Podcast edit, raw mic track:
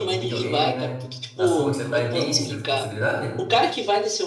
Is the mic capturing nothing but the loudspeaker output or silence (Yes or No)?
No